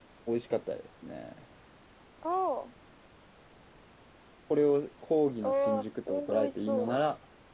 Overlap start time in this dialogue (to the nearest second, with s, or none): 5 s